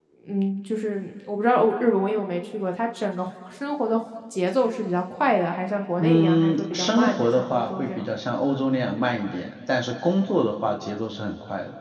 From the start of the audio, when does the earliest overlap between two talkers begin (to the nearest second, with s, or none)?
6 s